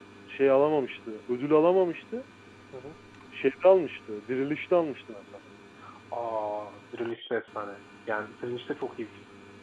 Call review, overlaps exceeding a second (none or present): none